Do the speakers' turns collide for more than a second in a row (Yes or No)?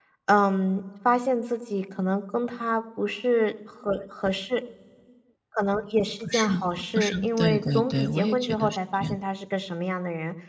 Yes